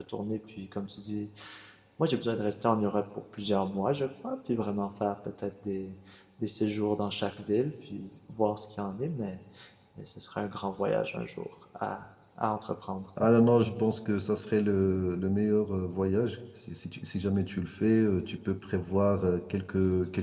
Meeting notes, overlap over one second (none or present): none